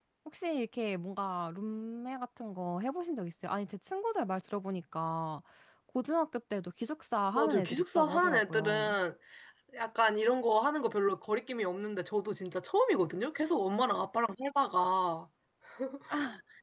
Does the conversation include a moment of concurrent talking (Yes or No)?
Yes